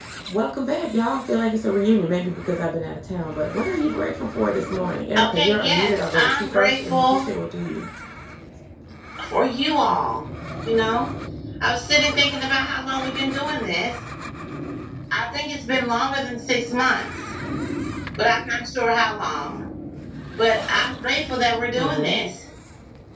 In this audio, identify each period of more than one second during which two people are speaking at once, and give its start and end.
5.3-7.3

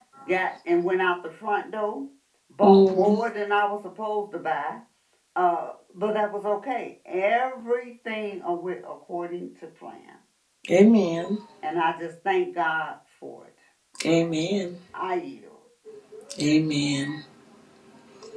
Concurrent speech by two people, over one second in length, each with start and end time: none

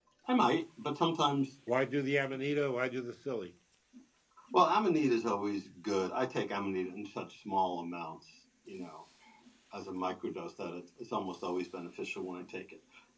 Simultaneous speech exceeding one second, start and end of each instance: none

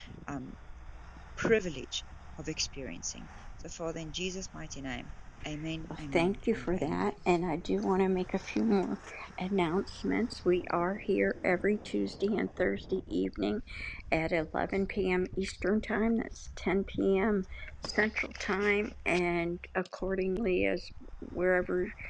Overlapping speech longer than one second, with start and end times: 5.9-7.1

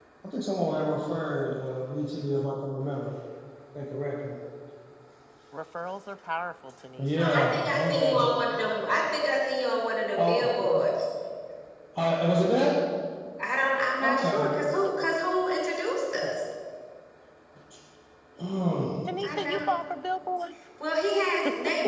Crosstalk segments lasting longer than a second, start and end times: 7.0-8.3

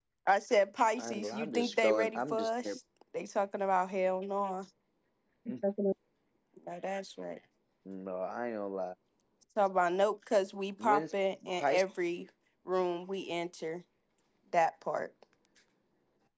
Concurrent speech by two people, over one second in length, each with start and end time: 1.0-2.8

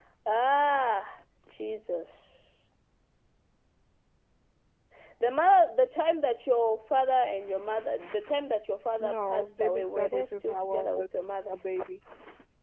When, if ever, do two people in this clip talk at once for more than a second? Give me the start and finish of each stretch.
9.0-11.0

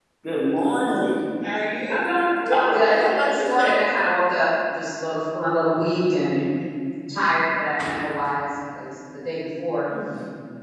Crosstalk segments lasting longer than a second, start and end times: 2.5-3.8

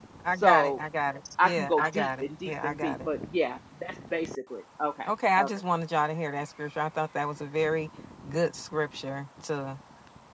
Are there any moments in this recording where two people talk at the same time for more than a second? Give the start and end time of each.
1.4-3.0

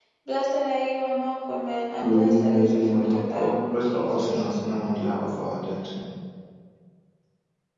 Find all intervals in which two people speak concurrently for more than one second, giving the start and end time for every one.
2.0-4.4

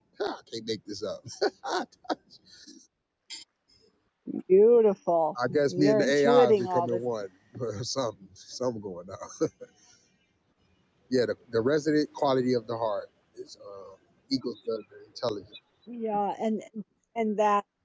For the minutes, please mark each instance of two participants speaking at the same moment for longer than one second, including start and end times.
5.5-7.0

